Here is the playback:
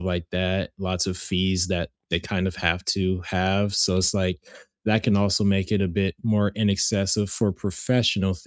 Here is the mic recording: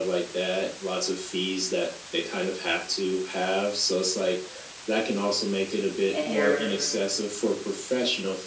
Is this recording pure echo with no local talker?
No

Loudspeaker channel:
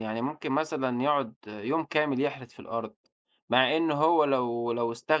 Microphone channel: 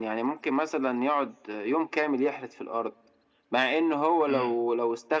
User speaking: Yes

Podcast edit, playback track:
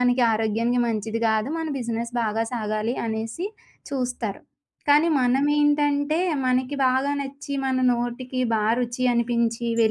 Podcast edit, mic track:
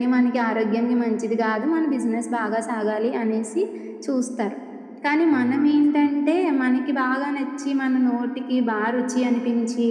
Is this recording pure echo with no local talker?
No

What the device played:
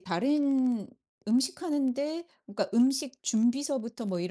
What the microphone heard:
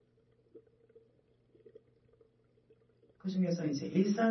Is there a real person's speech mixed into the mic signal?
Yes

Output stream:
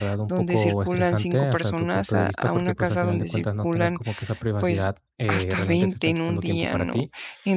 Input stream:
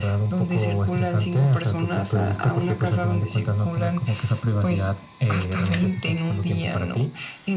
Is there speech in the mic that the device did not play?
No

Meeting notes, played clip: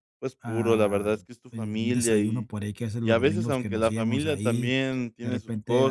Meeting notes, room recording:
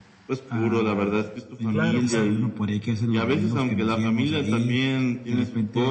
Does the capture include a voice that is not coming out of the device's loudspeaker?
Yes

